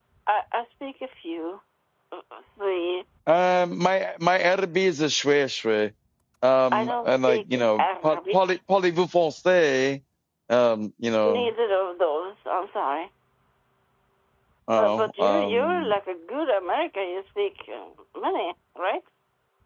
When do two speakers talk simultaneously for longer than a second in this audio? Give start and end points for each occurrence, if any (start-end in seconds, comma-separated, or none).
6.7-8.6, 14.8-16.0